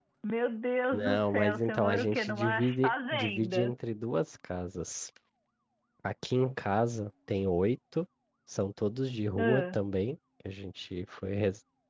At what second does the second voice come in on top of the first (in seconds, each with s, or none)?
0.9 s